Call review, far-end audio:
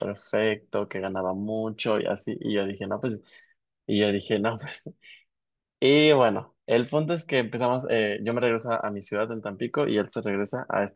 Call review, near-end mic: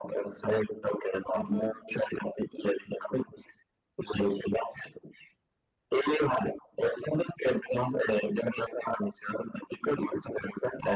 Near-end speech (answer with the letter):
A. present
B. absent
A